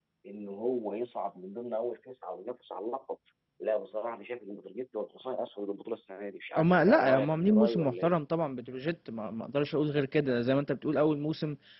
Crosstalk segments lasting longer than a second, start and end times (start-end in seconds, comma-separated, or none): 6.6-8.1